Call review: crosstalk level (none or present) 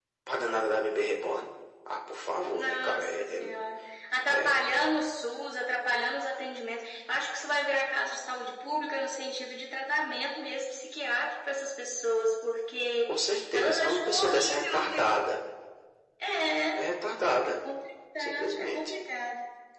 present